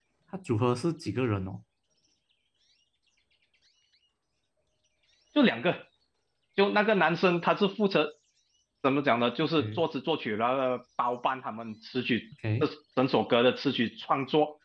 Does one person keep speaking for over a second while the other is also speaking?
No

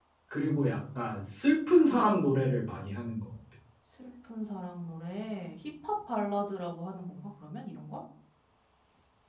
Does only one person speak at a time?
Yes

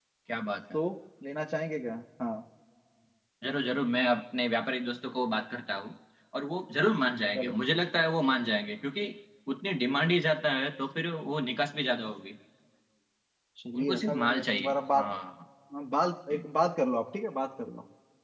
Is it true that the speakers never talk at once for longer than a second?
No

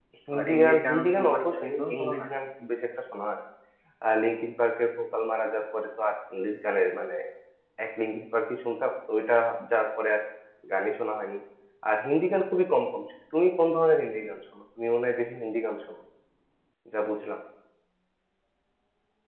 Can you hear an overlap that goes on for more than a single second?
Yes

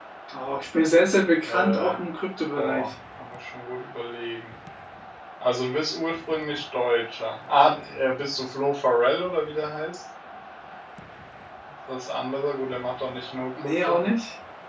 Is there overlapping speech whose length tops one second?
No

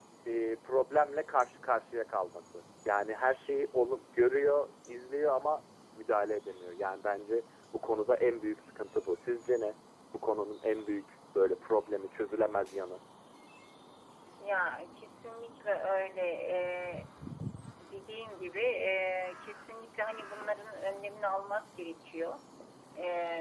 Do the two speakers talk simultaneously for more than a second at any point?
No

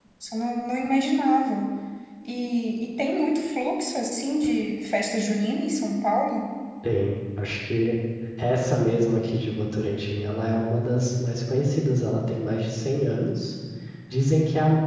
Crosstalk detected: No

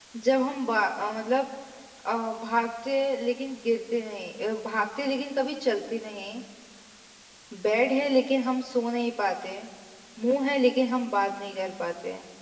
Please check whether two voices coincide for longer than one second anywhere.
No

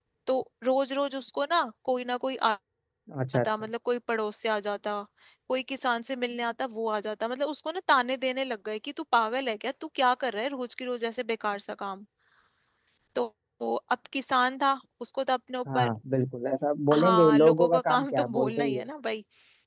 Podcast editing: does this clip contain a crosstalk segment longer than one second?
Yes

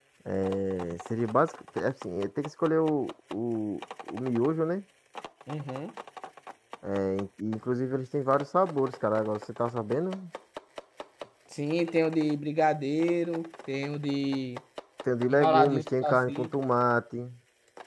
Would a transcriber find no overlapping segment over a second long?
No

